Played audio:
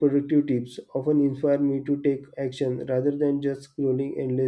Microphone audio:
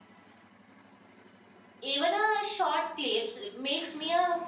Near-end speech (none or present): present